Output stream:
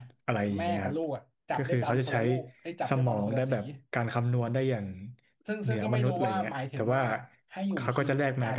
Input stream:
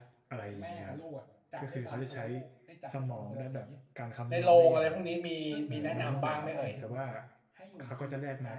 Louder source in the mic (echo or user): user